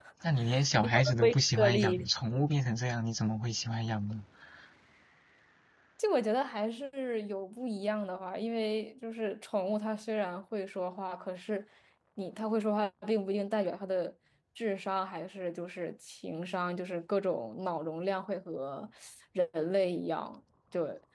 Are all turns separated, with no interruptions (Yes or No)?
No